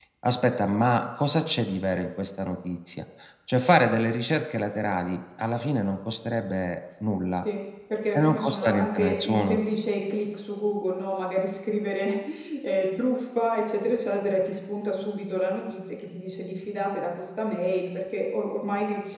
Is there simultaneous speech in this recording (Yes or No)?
Yes